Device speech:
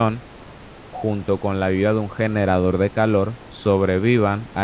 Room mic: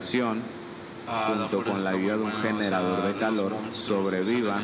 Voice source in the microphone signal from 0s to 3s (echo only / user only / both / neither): both